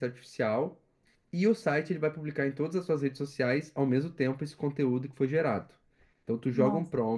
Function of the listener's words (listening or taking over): listening